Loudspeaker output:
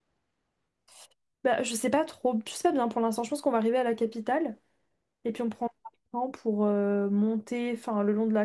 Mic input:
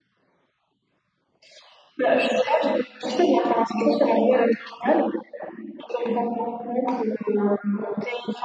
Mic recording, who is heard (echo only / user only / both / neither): echo only